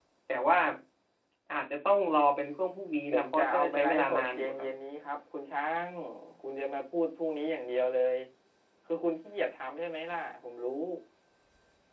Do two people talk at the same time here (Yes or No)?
Yes